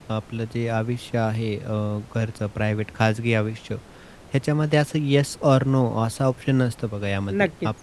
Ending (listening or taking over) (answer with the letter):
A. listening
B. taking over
A